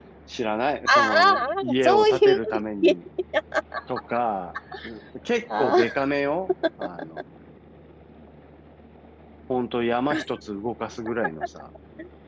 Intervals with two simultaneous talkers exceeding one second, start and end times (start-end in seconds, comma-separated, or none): 0.9-2.4